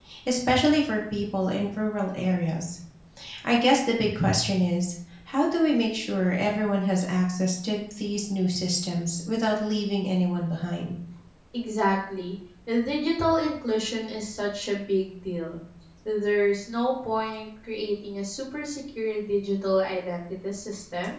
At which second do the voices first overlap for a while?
none

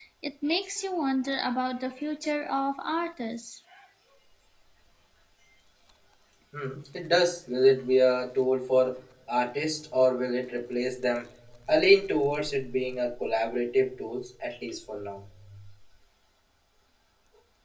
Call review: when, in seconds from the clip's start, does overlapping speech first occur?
none

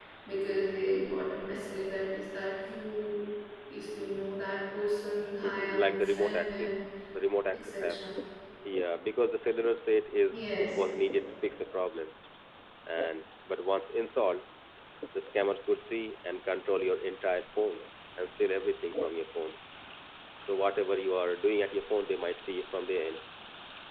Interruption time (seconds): 5.4 s

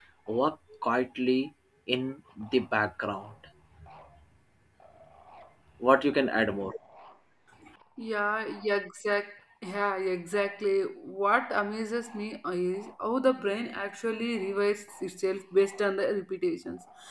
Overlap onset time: none

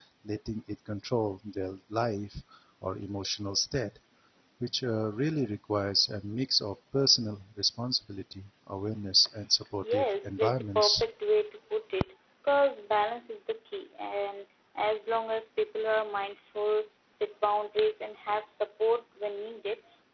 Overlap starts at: 9.8 s

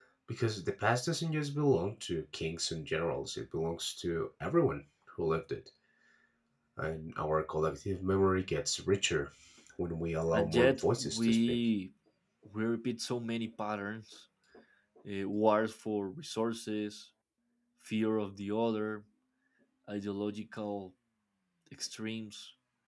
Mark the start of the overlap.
10.3 s

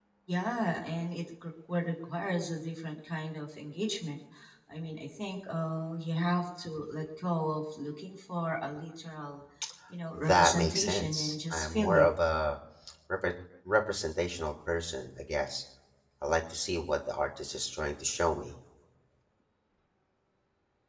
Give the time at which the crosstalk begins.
10.2 s

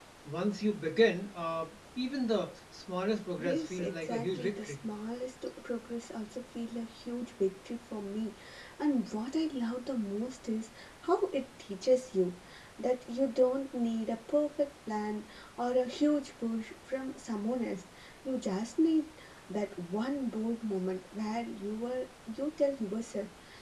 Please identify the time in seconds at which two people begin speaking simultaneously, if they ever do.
3.4 s

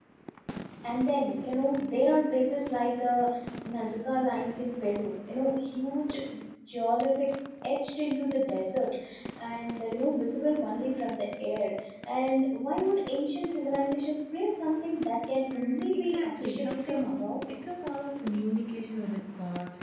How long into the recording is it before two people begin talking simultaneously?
15.5 s

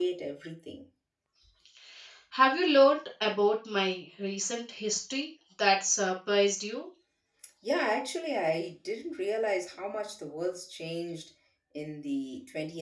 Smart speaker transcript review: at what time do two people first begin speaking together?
none

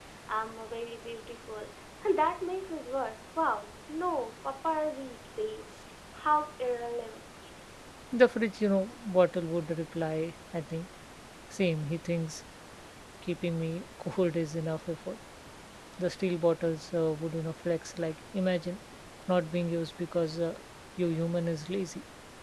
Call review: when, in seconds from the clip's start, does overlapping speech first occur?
none

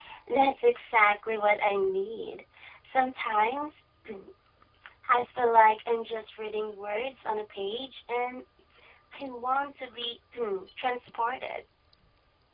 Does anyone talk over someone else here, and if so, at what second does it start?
none

